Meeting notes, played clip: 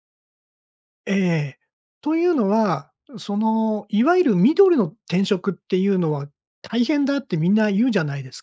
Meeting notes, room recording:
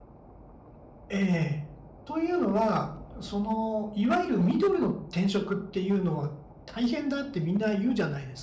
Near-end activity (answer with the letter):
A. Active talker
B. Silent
B